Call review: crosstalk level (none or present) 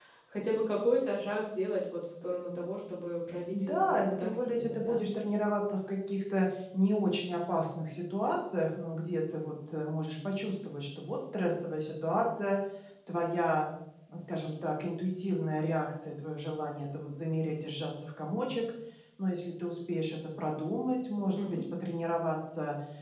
present